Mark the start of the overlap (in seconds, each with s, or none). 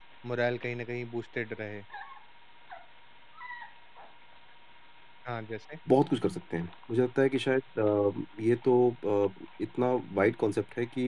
none